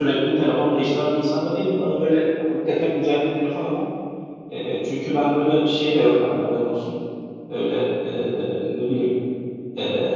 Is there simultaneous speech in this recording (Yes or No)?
No